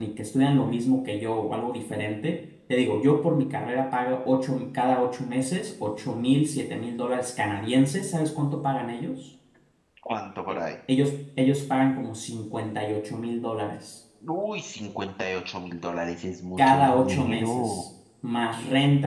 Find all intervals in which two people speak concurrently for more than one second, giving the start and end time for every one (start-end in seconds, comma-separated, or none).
16.6-17.8